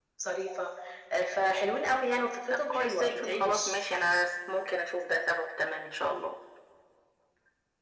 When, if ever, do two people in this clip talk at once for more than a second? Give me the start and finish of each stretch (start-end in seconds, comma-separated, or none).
2.5-3.7